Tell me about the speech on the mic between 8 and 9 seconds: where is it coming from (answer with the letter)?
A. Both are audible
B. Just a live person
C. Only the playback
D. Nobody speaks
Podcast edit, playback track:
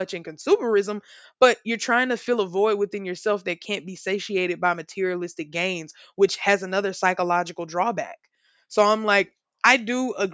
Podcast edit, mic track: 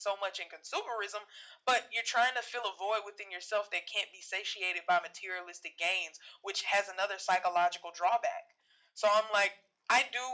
C